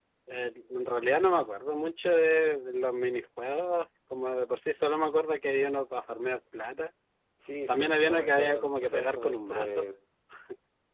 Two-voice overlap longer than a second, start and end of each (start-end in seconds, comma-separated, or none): 7.7-9.9